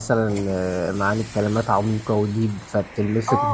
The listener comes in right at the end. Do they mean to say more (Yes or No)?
Yes